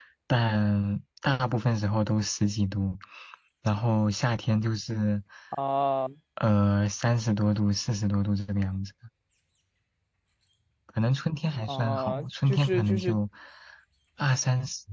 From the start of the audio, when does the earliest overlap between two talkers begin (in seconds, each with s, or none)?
11.6 s